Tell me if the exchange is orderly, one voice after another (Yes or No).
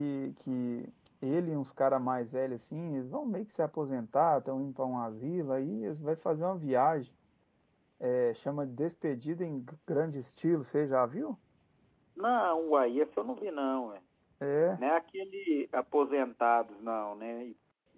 Yes